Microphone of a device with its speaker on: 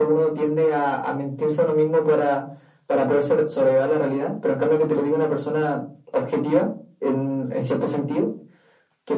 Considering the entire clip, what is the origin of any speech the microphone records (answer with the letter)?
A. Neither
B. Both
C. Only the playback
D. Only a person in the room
C